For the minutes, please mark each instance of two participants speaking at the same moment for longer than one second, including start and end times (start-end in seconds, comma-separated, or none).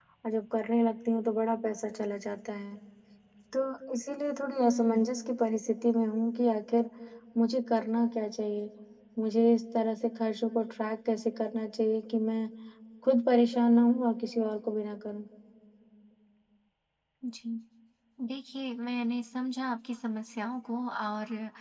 none